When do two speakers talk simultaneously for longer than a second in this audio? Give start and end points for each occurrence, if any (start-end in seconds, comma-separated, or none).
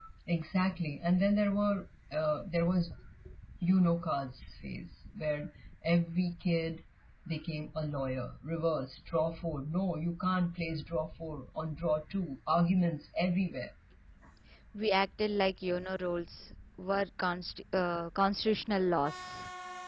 none